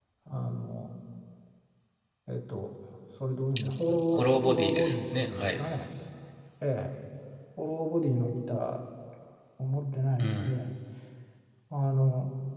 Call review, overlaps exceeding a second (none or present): present